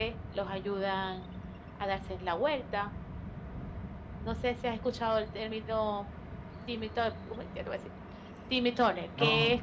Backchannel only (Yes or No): No